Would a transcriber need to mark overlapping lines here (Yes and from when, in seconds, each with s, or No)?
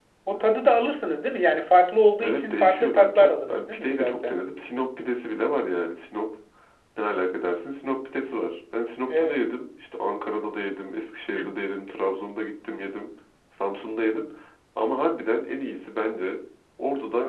Yes, from 2.2 s